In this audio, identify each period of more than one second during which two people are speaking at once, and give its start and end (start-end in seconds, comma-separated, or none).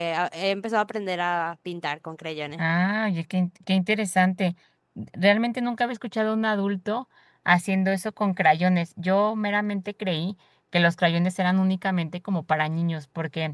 none